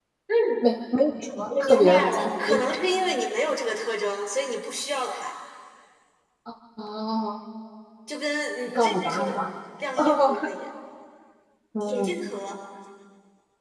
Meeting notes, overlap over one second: present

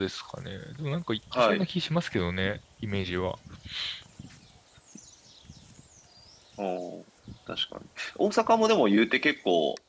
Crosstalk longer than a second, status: none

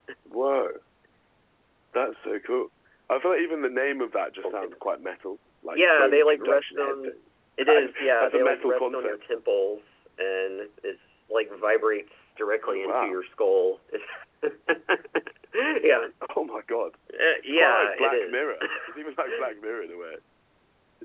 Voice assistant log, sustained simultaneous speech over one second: present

